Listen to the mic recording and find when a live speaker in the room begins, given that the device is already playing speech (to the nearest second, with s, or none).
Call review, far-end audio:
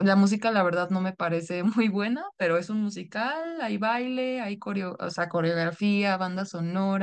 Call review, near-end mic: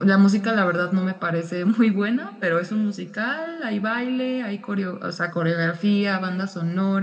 none